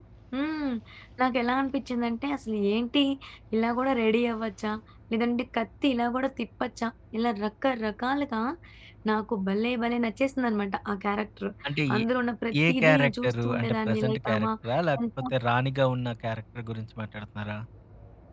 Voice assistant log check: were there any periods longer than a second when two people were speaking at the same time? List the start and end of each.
12.7-14.4

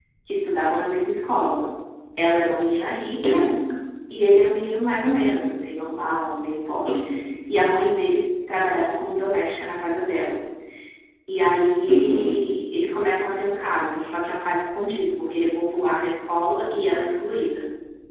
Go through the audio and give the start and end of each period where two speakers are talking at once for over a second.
none

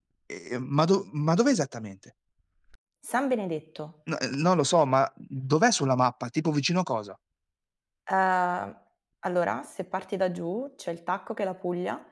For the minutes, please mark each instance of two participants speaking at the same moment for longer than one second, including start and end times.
none

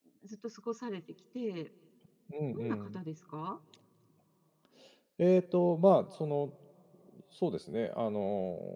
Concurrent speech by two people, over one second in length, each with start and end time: none

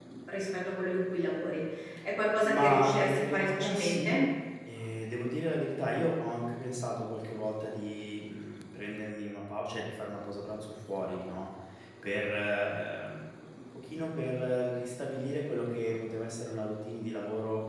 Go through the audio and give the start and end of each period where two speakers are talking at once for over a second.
2.4-4.2

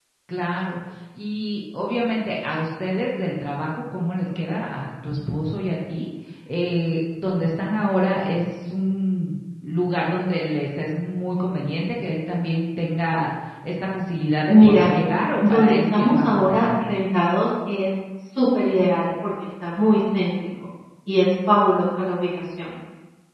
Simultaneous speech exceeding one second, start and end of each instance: 15.4-16.8

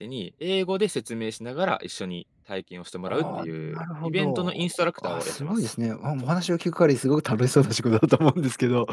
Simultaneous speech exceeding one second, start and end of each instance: 3.1-5.7

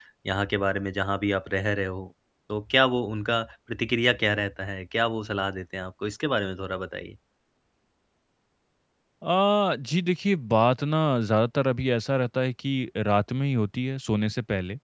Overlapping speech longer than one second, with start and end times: none

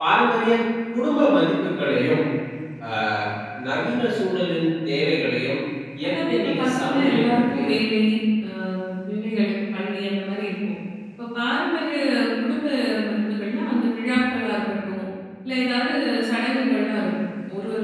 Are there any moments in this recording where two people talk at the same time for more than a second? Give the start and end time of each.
6.1-7.7

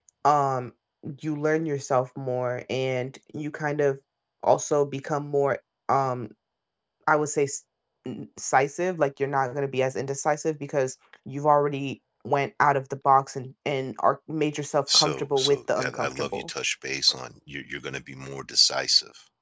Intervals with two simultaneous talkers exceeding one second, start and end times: 14.9-16.5

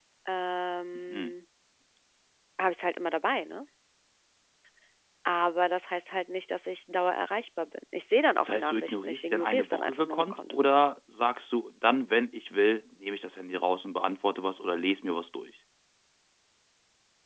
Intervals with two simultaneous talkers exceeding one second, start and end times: 8.4-10.5

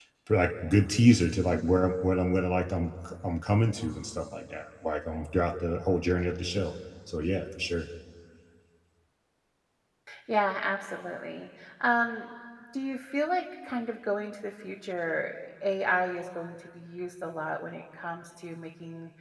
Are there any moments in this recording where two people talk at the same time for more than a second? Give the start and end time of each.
none

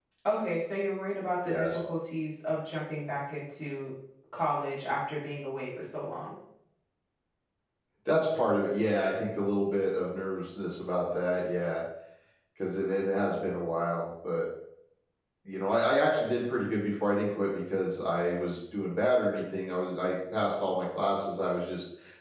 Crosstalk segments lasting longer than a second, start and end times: none

